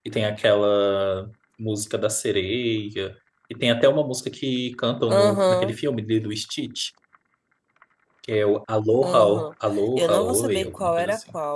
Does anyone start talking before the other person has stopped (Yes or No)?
Yes